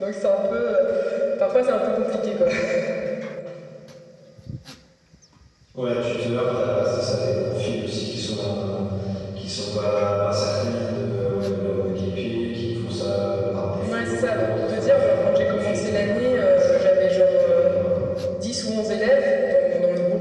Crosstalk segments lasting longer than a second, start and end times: 13.8-16.8

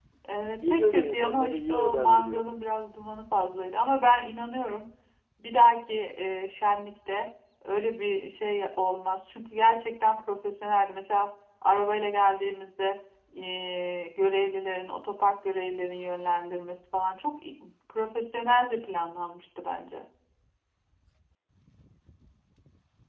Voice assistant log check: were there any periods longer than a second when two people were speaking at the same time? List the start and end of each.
0.7-2.4

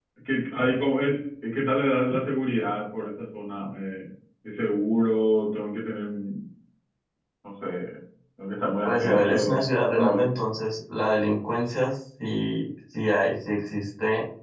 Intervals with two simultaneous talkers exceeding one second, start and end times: 8.8-10.3

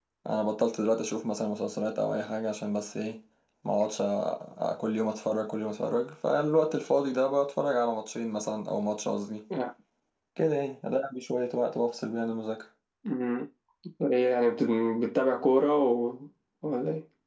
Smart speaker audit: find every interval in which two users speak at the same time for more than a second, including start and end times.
none

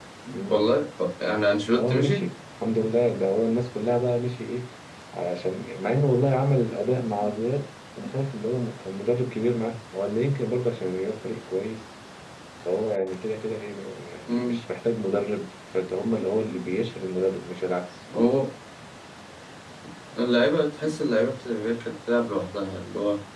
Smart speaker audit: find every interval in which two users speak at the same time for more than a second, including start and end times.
none

